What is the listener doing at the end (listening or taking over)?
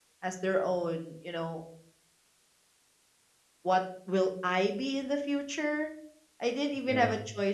listening